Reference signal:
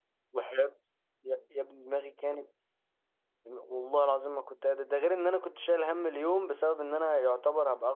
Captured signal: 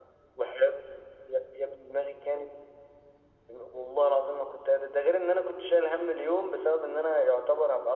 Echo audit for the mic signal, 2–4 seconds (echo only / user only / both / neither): echo only